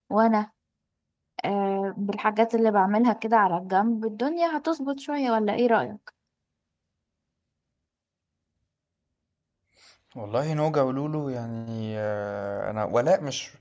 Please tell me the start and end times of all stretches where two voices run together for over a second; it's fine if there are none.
none

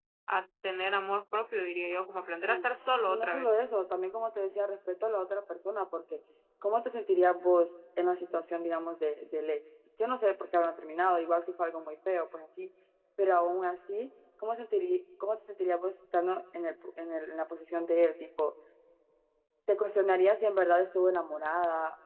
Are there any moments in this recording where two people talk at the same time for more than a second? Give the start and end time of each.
none

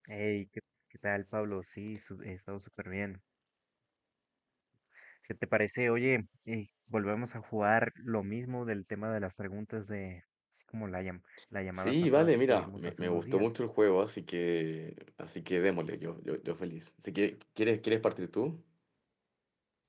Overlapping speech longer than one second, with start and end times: 11.8-13.5

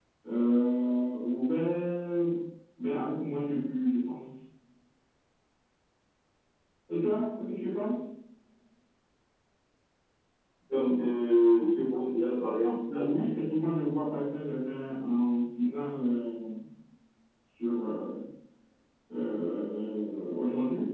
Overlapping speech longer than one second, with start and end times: none

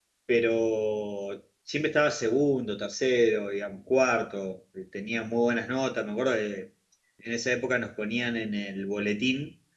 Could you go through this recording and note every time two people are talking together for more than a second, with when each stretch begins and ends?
none

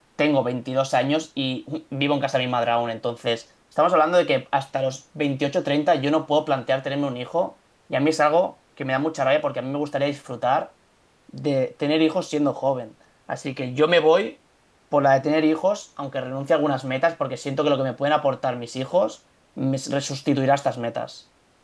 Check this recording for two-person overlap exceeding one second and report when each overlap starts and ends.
none

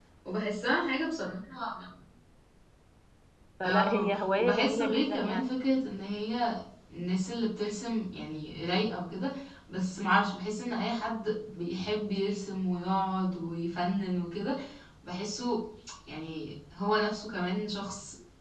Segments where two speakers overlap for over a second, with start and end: 3.6-5.4

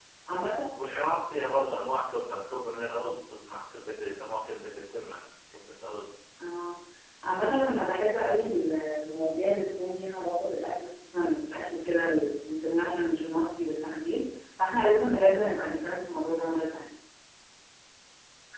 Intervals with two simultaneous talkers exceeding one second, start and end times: none

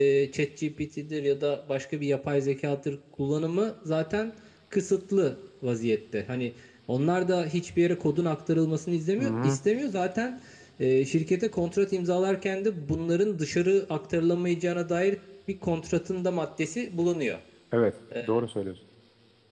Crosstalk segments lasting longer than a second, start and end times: none

